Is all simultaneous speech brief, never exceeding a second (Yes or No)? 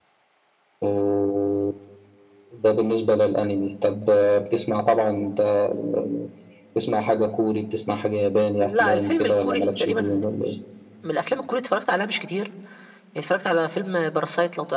No